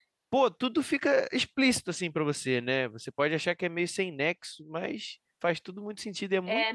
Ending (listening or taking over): taking over